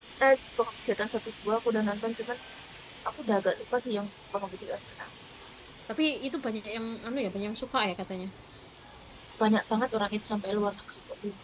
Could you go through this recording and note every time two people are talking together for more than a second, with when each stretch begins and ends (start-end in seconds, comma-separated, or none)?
none